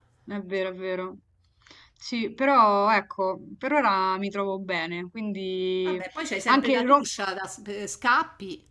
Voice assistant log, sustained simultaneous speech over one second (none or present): none